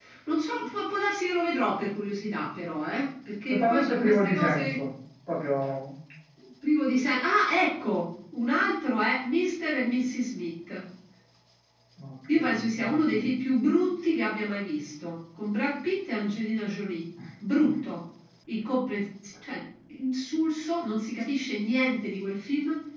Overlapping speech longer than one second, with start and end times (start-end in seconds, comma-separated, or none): 3.5-4.8